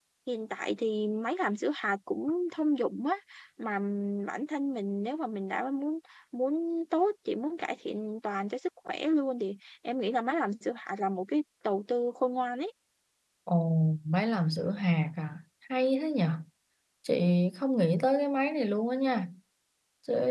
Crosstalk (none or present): none